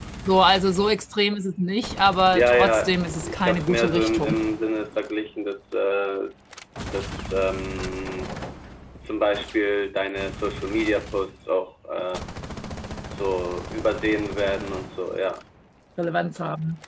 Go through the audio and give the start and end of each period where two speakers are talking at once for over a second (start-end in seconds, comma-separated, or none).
2.3-4.4